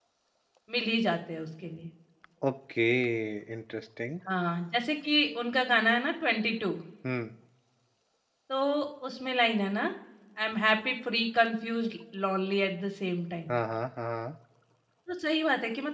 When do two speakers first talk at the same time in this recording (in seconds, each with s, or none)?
none